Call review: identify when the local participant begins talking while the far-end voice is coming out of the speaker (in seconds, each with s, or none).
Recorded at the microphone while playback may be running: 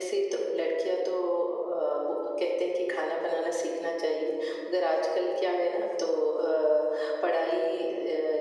none